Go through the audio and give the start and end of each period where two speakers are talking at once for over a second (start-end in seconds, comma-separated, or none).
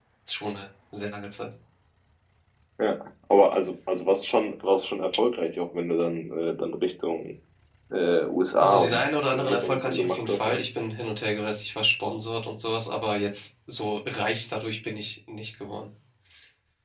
8.6-10.6